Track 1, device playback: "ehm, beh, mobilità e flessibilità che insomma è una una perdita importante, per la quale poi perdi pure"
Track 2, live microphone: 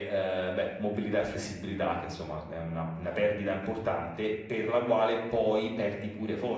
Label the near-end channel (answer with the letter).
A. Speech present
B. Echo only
B